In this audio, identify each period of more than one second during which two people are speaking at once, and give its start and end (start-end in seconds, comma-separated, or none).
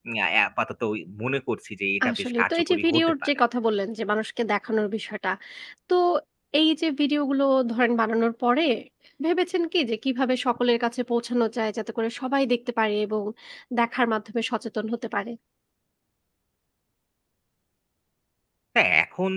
2.0-3.3